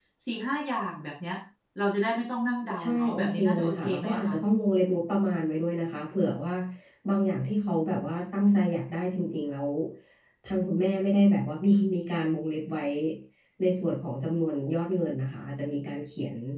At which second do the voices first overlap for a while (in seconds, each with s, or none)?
2.7 s